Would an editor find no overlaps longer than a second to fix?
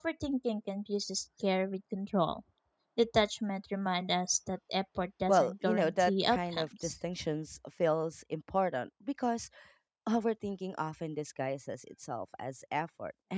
No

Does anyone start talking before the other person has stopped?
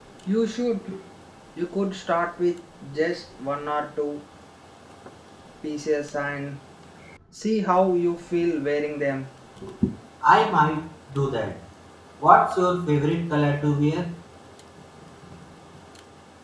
No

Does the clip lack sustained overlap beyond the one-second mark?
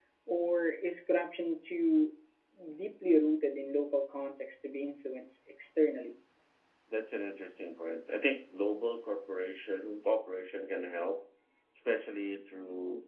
Yes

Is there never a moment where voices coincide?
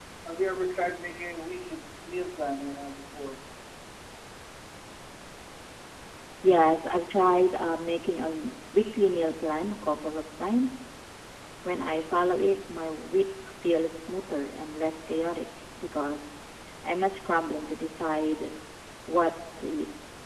Yes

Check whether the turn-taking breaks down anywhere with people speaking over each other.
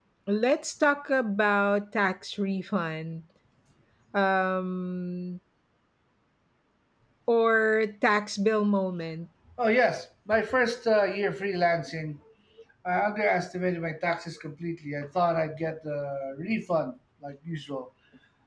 No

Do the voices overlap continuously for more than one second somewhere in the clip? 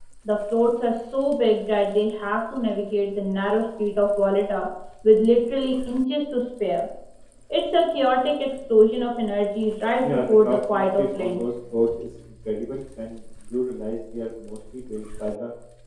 Yes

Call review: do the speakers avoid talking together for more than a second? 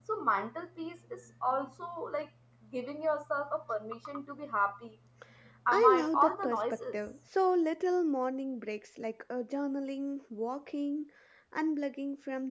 No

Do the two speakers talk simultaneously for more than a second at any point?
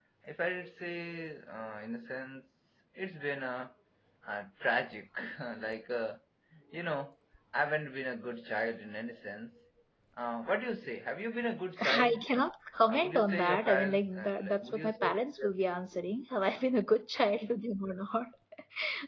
Yes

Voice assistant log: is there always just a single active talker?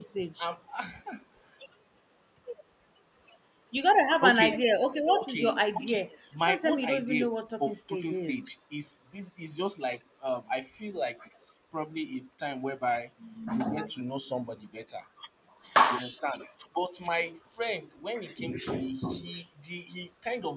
No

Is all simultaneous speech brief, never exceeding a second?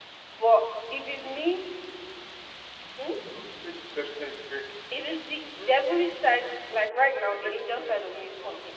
No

